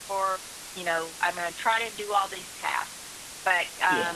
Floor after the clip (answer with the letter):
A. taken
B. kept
B